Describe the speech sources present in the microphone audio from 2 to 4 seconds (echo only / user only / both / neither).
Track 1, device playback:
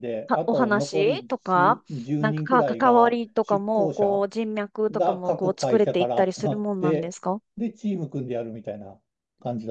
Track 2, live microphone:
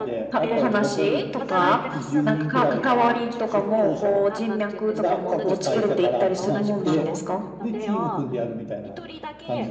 both